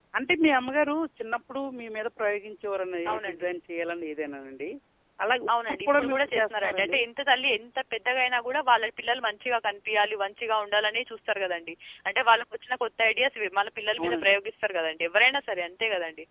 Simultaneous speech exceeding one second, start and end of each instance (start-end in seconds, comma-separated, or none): 5.5-7.0